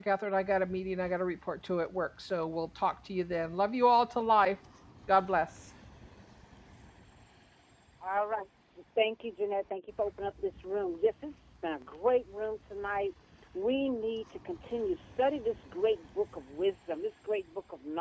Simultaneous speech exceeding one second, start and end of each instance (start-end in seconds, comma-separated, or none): none